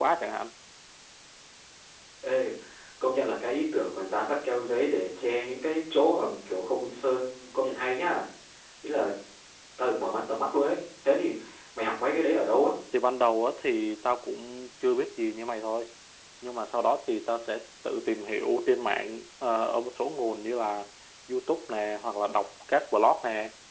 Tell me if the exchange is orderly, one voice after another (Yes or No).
Yes